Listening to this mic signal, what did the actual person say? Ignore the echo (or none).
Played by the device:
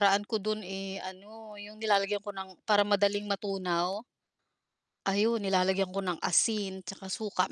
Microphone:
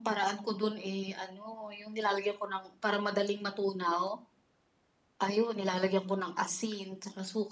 none